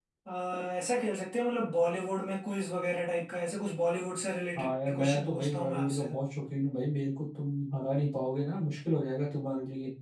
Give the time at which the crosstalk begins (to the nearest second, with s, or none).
5 s